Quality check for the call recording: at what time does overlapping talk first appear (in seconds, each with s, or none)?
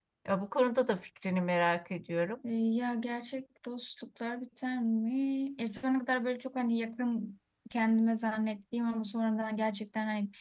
none